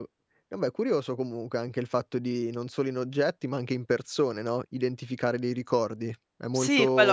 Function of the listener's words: taking over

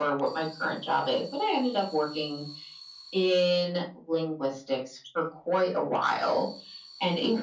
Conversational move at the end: listening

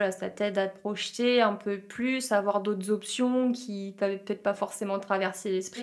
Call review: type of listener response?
taking over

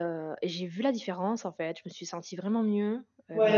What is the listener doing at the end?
taking over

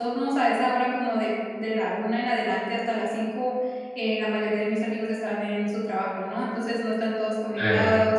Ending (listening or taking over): listening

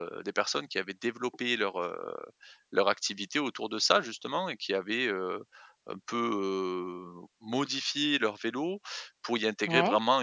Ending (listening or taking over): listening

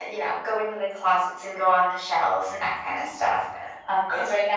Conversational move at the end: listening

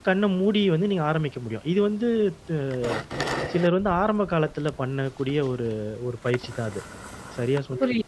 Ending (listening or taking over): taking over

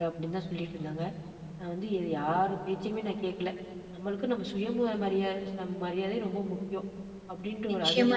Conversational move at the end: taking over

